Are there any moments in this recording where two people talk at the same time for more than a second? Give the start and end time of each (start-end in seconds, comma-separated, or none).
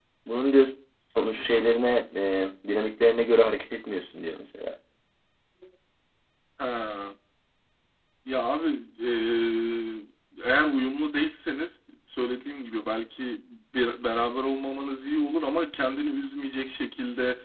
none